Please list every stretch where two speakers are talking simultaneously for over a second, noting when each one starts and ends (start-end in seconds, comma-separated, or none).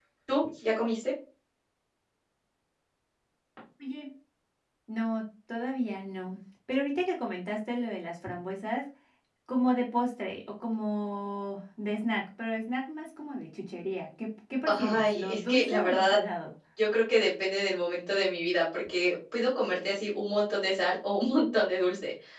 14.7-16.2